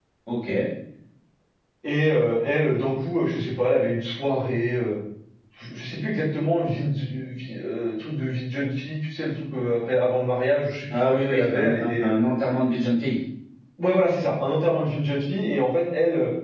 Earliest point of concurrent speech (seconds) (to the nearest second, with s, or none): 11 s